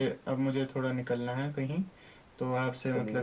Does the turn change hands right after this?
No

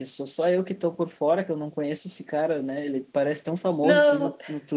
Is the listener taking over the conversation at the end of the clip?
No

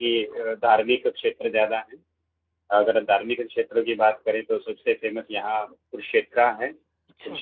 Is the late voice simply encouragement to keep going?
Yes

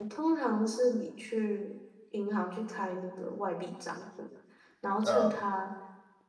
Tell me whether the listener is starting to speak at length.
No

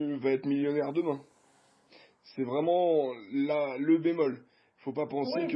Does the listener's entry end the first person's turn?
Yes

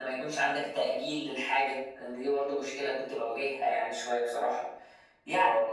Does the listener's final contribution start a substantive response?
No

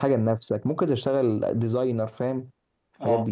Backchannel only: No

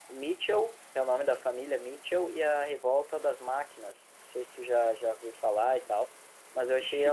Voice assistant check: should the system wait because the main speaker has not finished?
Yes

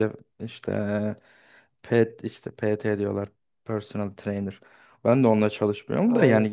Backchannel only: Yes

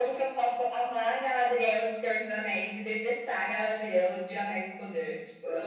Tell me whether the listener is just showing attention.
No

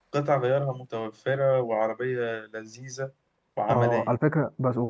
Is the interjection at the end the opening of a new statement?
Yes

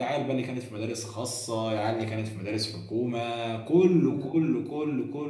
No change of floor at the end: Yes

